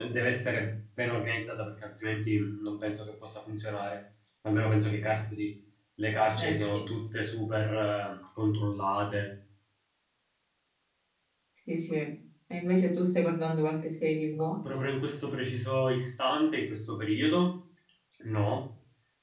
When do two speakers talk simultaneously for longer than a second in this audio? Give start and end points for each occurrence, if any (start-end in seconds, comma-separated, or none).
none